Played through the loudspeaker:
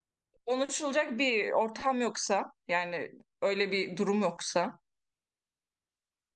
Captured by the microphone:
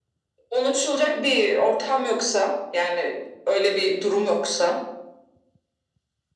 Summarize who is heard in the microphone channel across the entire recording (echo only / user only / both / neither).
echo only